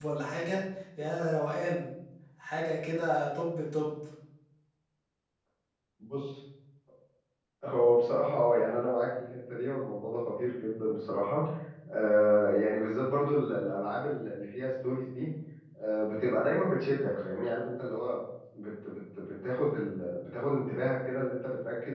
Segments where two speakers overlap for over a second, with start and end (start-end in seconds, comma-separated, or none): none